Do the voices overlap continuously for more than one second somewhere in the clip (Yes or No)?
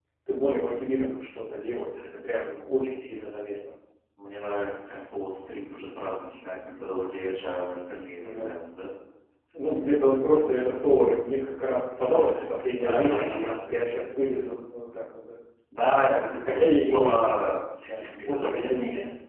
Yes